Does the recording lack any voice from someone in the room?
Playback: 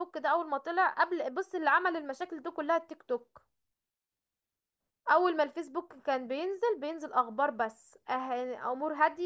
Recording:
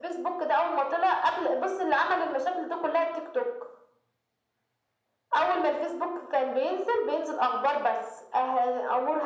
Yes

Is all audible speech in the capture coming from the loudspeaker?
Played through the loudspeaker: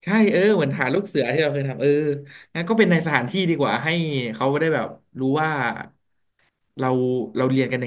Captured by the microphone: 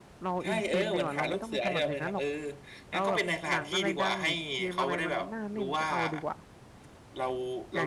No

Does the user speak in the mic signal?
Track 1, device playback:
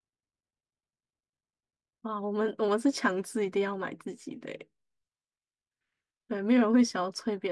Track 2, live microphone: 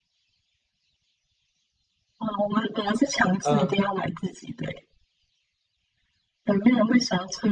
Yes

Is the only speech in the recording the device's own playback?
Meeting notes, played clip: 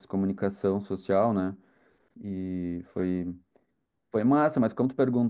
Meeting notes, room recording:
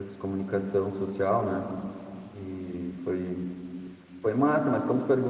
Yes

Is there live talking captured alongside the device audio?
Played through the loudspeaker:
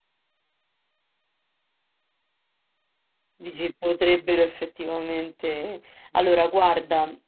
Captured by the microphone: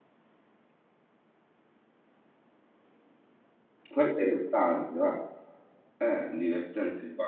Yes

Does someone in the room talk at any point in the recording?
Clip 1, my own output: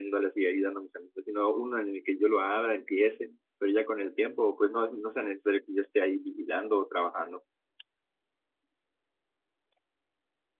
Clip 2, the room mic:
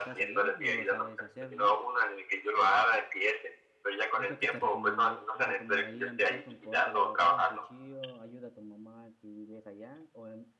Yes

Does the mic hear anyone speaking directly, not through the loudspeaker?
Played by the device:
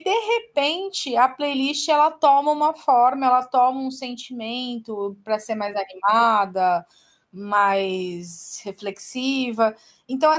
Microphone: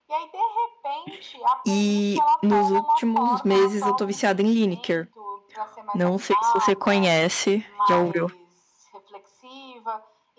Yes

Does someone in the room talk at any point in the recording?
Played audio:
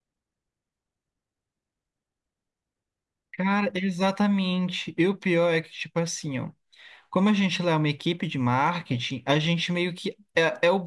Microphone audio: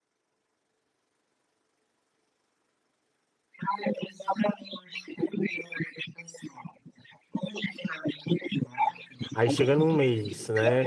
Yes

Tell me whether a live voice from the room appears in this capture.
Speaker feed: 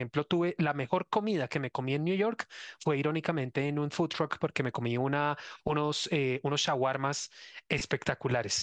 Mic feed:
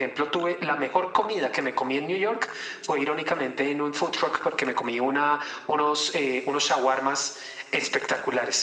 No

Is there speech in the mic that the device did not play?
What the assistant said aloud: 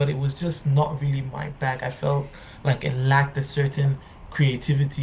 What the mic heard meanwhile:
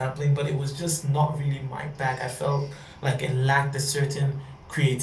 No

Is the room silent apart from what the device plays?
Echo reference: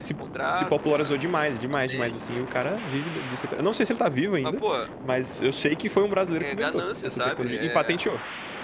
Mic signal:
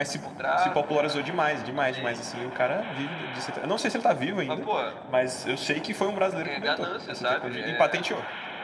Yes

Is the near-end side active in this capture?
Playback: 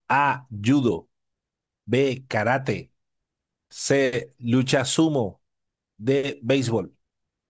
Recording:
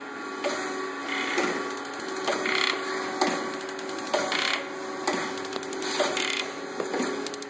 No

